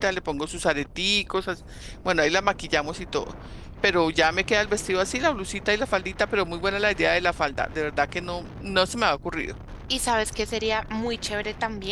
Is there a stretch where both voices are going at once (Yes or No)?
No